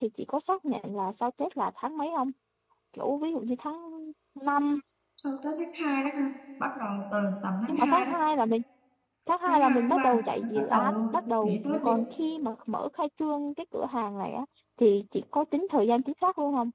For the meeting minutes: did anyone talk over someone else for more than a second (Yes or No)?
Yes